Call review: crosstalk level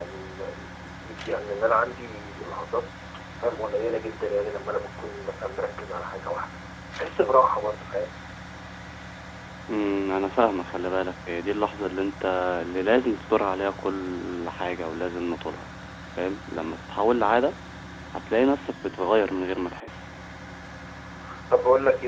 none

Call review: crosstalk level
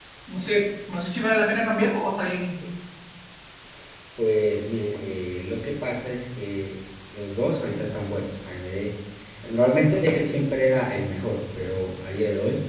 none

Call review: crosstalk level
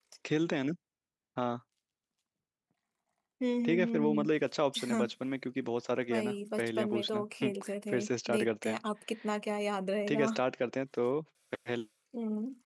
present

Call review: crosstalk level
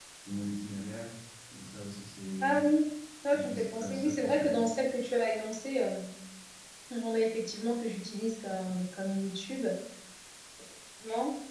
present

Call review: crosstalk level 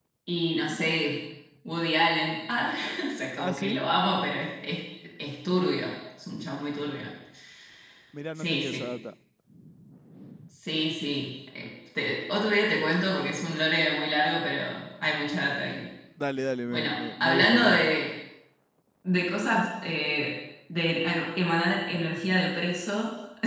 present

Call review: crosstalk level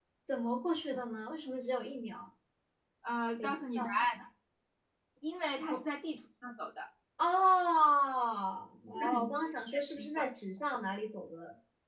present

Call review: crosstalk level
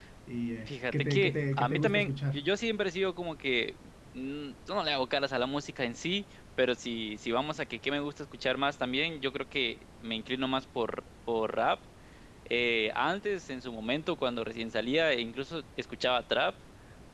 present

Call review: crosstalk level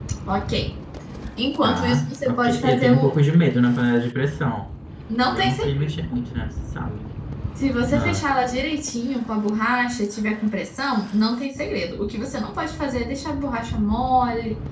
present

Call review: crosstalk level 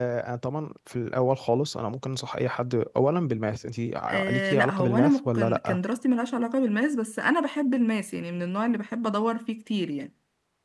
present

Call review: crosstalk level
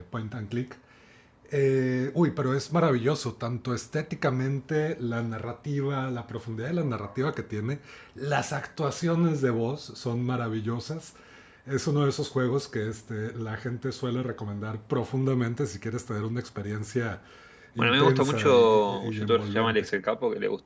present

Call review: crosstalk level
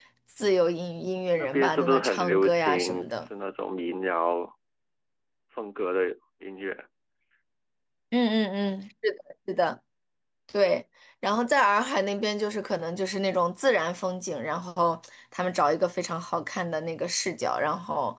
present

